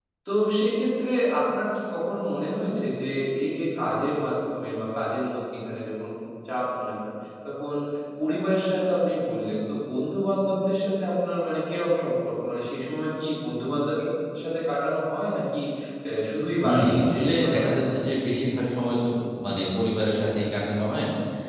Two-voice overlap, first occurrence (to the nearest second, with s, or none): 17 s